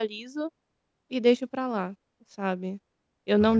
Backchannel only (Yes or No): Yes